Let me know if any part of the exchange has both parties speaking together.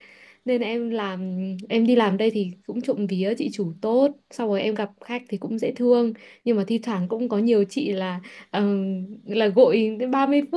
No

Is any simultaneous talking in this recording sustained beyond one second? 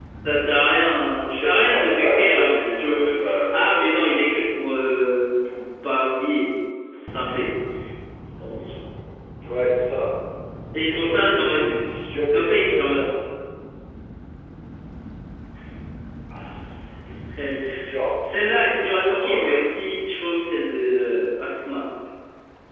Yes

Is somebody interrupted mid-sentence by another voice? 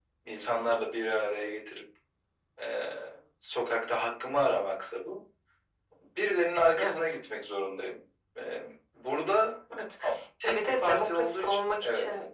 Yes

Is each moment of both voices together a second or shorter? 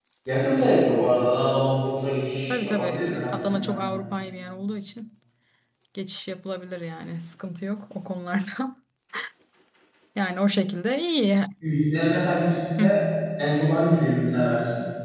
No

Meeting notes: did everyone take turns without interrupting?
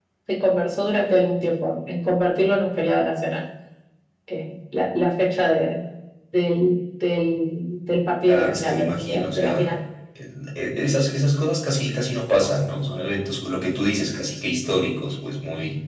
No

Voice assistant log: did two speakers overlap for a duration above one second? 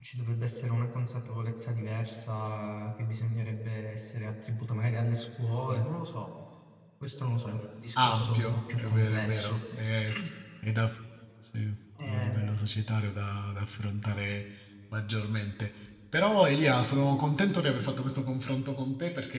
Yes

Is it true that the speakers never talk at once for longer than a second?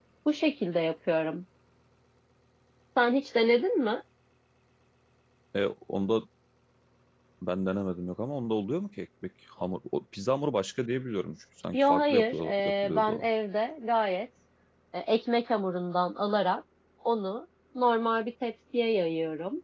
No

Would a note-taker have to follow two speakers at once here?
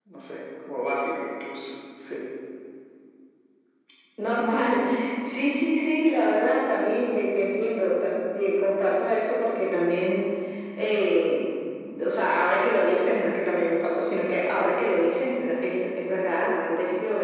No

